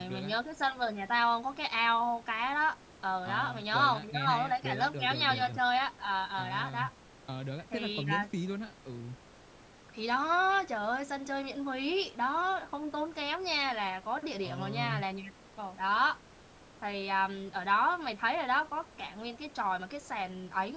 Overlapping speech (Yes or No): Yes